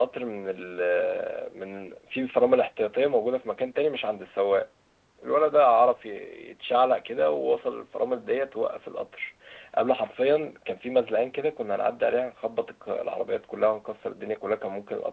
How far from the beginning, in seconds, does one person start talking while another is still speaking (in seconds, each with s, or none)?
none